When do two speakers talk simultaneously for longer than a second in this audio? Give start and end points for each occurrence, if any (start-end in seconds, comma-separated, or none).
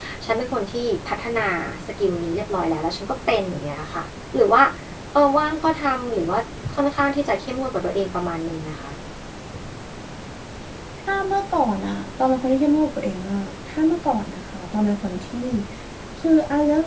none